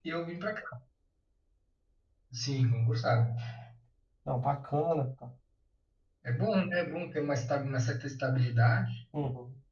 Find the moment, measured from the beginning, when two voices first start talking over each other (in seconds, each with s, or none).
none